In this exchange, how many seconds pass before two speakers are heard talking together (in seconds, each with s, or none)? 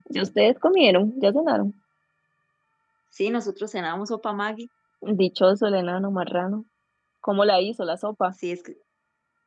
none